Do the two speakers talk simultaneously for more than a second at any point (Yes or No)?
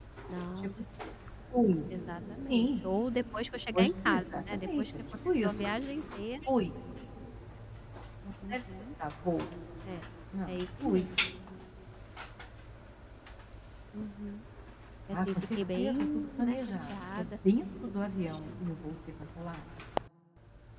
Yes